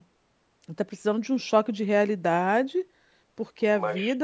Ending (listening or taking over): listening